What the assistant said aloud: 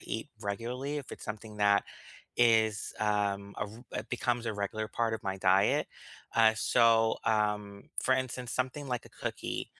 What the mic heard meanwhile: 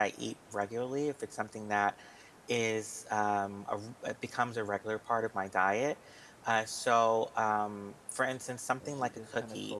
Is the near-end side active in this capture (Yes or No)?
Yes